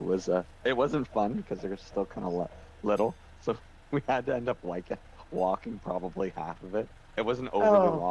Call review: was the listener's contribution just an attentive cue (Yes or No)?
Yes